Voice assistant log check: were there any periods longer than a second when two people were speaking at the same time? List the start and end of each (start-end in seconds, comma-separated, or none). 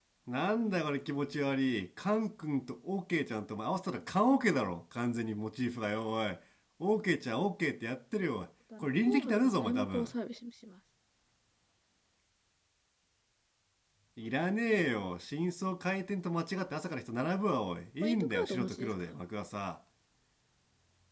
8.8-10.1, 18.0-19.2